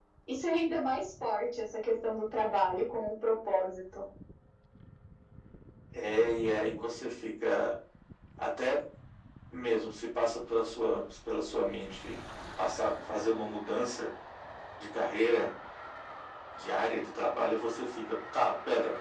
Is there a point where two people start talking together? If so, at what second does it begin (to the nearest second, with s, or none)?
none